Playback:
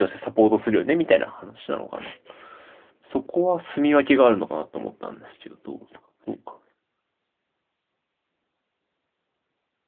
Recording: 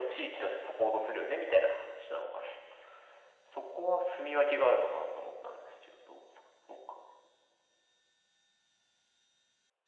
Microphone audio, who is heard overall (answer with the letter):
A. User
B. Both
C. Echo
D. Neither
C